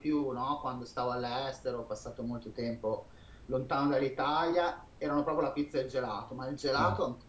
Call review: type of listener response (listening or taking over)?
listening